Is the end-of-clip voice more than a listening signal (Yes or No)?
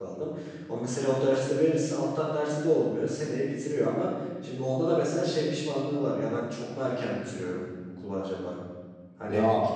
No